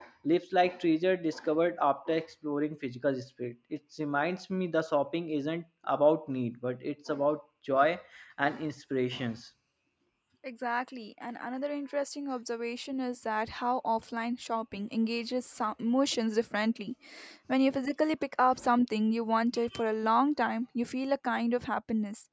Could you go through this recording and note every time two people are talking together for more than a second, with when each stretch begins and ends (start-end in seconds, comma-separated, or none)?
none